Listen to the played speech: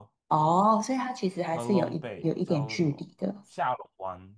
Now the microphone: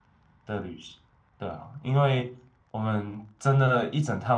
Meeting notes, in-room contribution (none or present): present